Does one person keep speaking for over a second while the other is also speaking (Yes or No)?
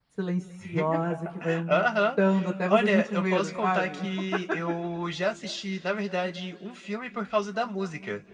Yes